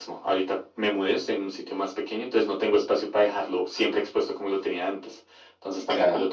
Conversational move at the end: listening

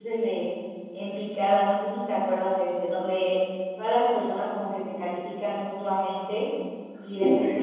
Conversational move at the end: listening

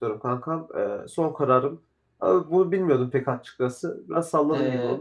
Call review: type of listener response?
taking over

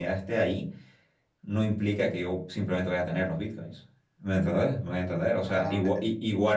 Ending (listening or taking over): listening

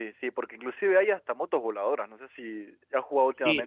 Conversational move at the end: taking over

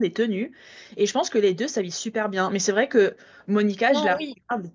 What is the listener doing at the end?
listening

